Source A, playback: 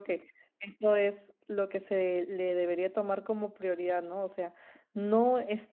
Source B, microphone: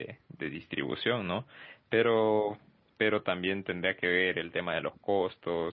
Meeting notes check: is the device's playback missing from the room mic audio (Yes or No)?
Yes